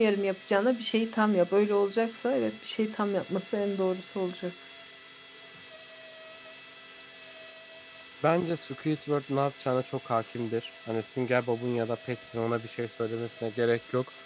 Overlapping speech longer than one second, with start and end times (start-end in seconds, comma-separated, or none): none